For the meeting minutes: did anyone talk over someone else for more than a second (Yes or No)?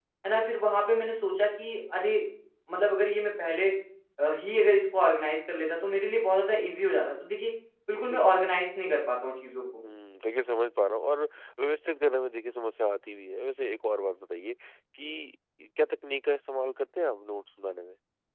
No